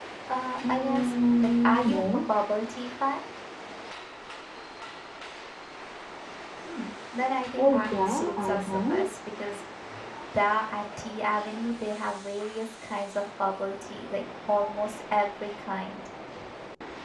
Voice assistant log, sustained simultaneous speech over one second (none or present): present